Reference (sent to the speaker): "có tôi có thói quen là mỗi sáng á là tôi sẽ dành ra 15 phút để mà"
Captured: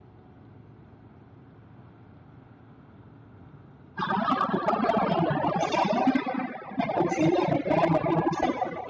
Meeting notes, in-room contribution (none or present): none